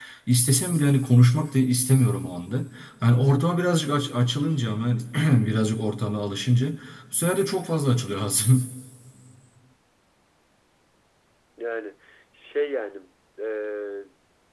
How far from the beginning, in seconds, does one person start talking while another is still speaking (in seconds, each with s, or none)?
none